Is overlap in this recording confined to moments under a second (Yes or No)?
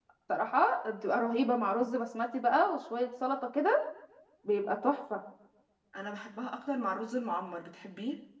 Yes